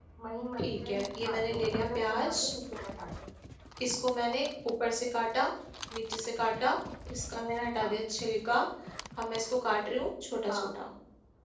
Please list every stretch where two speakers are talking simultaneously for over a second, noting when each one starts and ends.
0.6-2.4

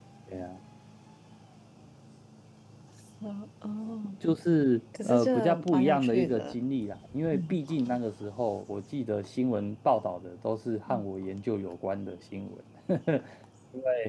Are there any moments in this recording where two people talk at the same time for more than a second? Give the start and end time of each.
5.0-6.5

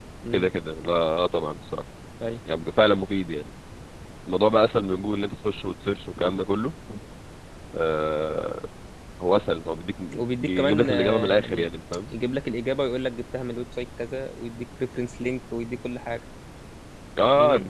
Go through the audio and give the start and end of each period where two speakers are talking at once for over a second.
10.4-11.7

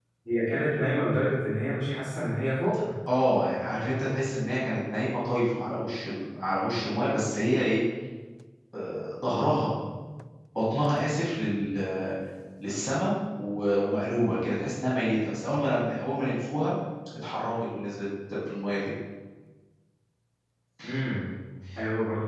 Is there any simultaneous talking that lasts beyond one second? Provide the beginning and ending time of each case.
none

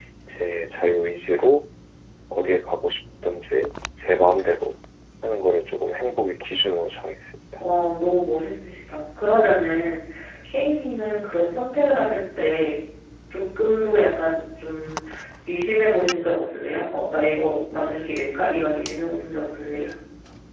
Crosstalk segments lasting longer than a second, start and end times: none

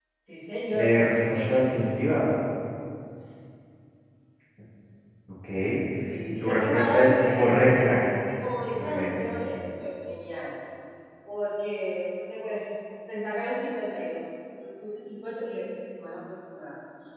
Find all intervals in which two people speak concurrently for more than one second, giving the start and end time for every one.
6.4-8.0

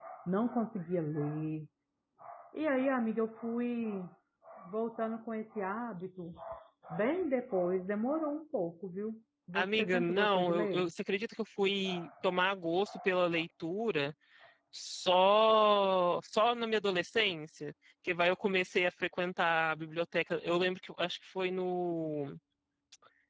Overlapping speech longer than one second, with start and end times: 9.5-10.9

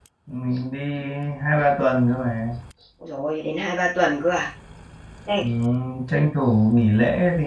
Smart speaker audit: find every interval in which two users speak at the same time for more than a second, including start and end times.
none

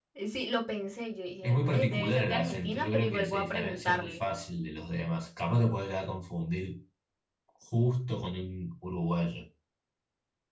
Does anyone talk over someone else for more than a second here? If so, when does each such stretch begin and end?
1.4-4.2

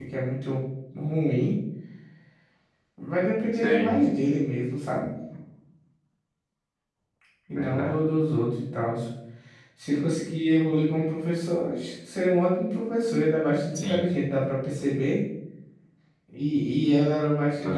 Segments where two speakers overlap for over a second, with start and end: none

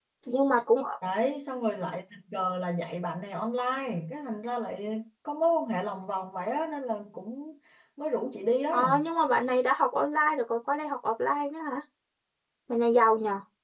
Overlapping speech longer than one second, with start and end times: none

